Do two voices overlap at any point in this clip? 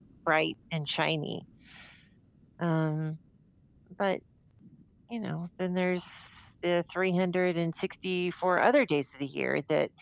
No

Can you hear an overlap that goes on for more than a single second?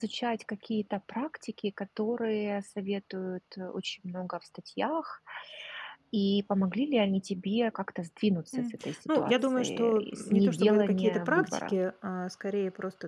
Yes, from 8.5 s

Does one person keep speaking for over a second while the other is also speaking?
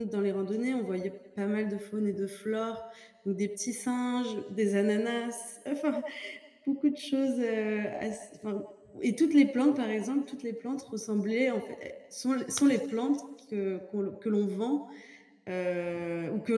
No

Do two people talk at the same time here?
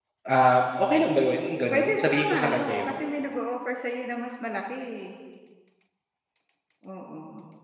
Yes, from 1.7 s

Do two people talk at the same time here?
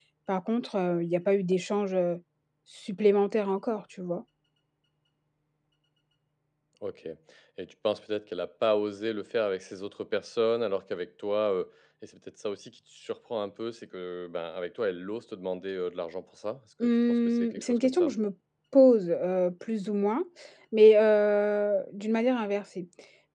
Yes, from 16.8 s

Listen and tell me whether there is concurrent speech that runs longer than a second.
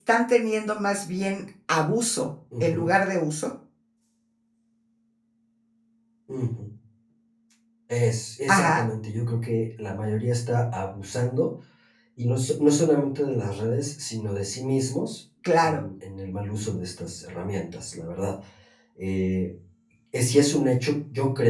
No

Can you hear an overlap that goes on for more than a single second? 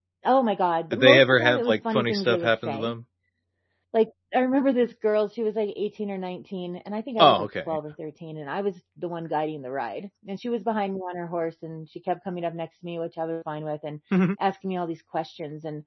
Yes, from 0.9 s

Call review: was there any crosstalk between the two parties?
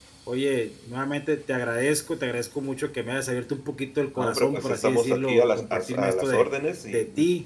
Yes, from 4.2 s

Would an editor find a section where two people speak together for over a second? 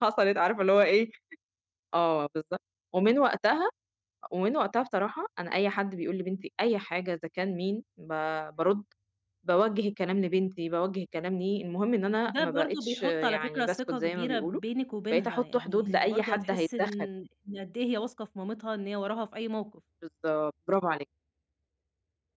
Yes, from 12.2 s

